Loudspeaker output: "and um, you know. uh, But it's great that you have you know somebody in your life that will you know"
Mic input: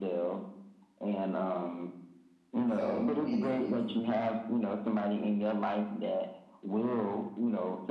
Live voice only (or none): so it's it's